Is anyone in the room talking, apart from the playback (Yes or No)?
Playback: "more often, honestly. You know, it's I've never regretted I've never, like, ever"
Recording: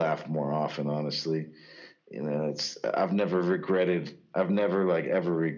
No